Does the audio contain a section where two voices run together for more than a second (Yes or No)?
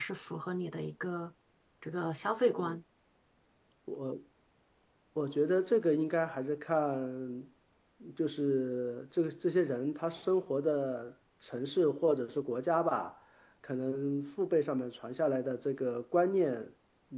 No